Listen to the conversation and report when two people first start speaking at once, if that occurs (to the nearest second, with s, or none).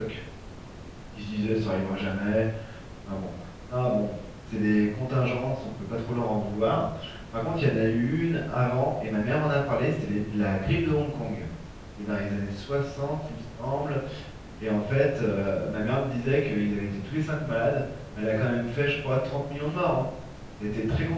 none